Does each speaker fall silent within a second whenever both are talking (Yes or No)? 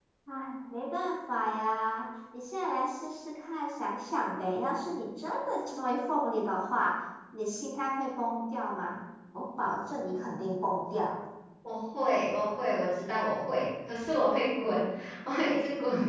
Yes